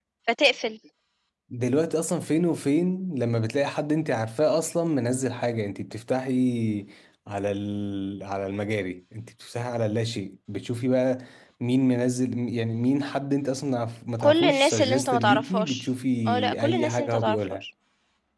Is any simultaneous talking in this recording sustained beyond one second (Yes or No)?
Yes